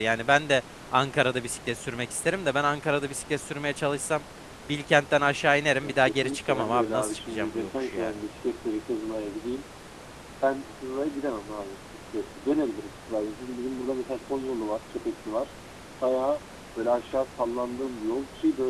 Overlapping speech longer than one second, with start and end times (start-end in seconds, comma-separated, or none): 5.8-8.1